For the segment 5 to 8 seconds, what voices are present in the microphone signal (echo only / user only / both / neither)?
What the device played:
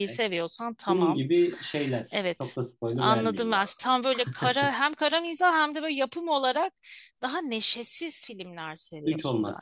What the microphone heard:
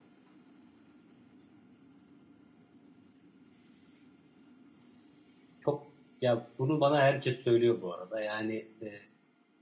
user only